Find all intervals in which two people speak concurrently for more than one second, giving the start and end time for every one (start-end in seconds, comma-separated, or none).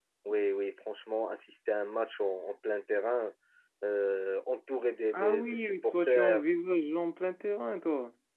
5.1-6.4